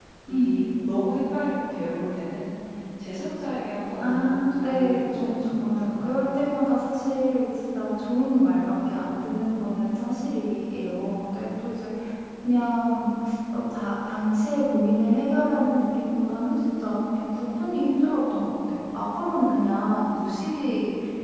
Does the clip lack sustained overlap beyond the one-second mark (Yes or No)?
No